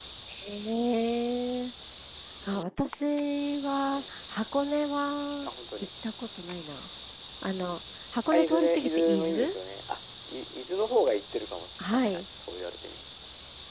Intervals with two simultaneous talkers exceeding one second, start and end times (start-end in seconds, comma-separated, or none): 8.3-9.5